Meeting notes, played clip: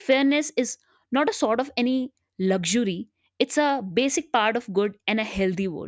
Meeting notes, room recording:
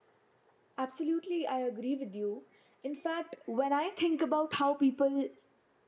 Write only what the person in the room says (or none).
Absolutely, I agree with you. In fact, when I think about how people,